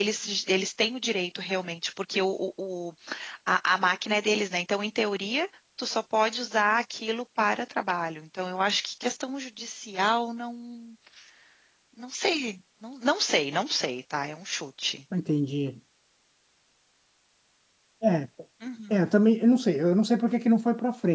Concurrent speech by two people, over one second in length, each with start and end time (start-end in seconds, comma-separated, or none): none